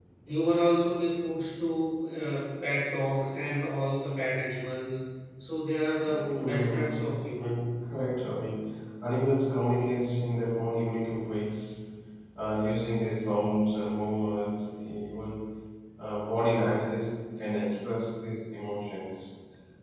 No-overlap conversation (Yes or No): No